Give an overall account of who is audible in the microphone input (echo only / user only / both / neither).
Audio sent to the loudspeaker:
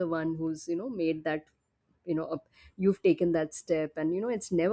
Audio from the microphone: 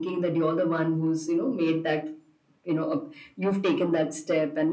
echo only